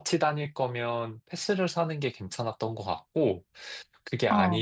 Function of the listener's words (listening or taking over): listening